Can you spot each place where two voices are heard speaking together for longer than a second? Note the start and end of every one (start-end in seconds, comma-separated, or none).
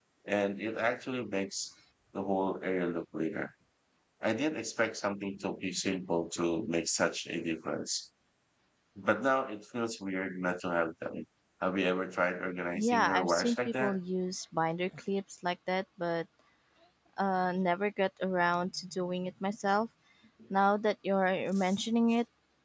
12.8-14.0